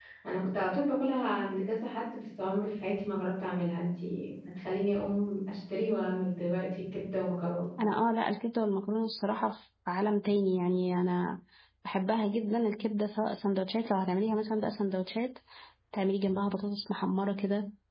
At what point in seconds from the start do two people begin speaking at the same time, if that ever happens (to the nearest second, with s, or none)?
none